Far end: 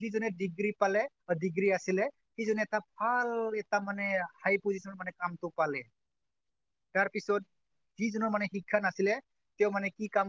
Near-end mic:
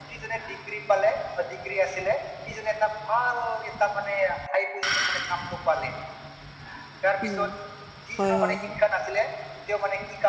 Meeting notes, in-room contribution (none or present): present